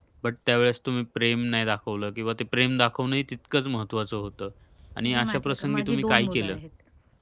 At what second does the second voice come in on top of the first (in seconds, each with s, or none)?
5.0 s